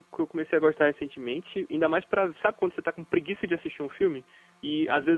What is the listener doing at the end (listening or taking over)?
listening